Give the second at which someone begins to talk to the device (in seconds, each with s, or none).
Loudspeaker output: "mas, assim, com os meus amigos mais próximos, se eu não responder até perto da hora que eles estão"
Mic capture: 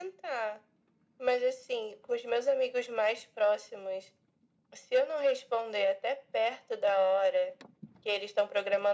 none